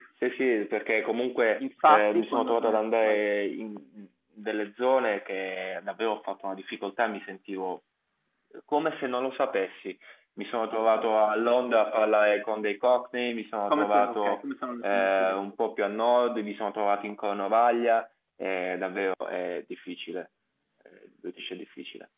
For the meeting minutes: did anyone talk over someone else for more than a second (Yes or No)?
Yes